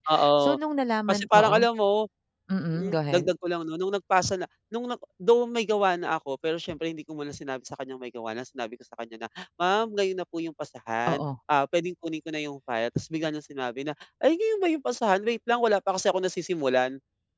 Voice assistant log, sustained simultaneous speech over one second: none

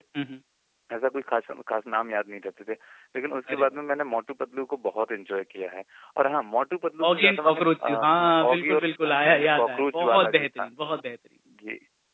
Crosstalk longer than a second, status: present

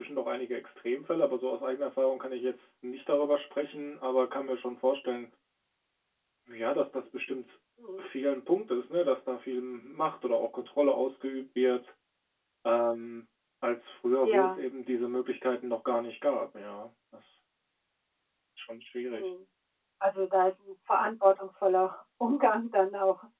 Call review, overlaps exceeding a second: none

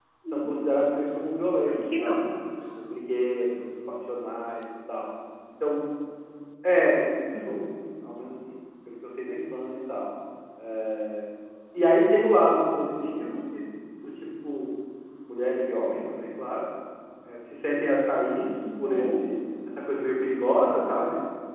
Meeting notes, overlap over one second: none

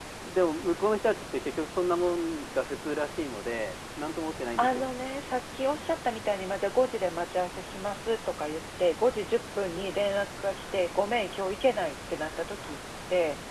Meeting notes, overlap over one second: none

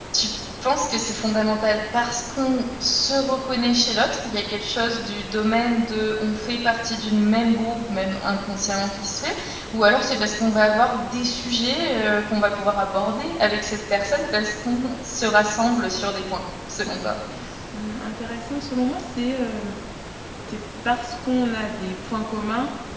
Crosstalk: none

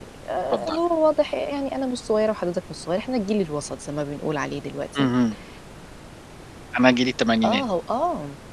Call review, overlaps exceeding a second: none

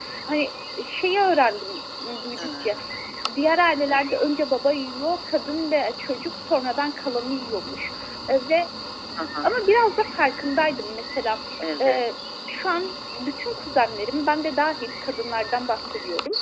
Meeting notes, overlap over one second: none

